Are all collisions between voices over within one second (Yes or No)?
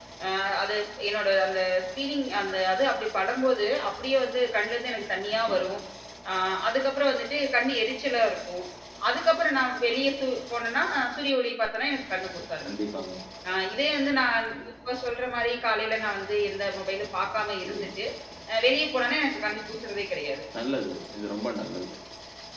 Yes